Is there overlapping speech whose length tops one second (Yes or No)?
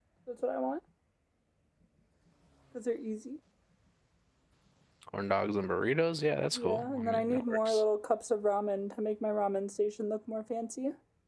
Yes